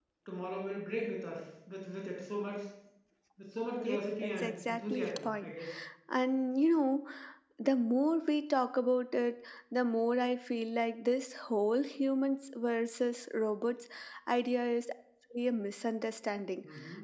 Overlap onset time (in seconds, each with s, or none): 3.8 s